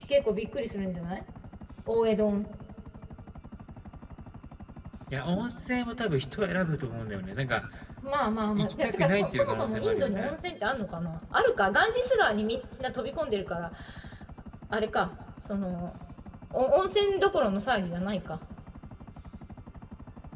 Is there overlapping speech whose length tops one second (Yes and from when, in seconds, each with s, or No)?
Yes, from 8.6 s